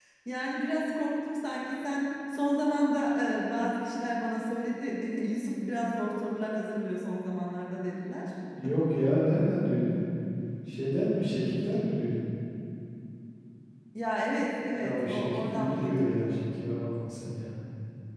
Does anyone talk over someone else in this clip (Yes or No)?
Yes